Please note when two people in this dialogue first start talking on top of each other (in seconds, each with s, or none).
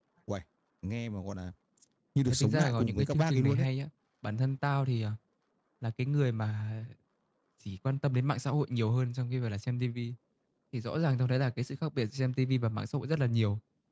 2.3 s